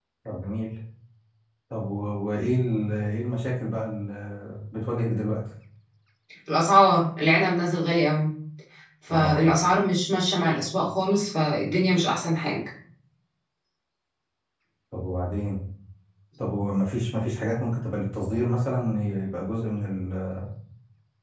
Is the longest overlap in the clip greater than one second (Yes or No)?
No